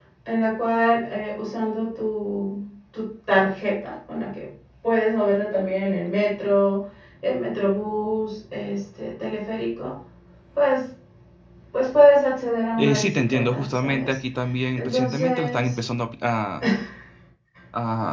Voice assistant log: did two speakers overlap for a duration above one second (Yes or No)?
Yes